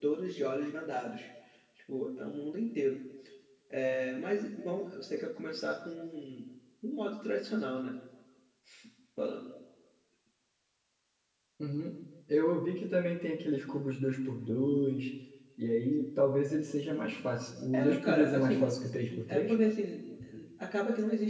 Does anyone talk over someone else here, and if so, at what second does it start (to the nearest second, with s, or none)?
18 s